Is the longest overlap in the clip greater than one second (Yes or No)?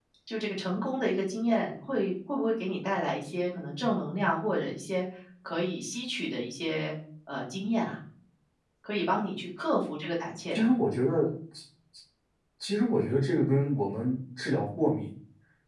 No